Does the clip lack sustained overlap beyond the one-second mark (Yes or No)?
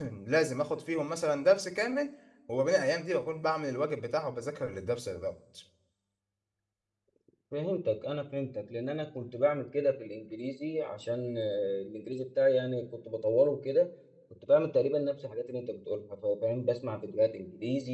Yes